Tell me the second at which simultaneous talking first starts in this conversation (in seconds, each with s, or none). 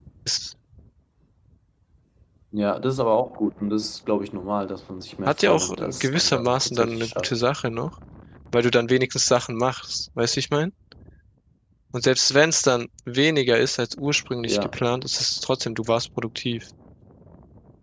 5.3 s